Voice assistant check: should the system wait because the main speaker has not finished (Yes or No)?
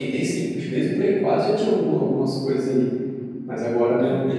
Yes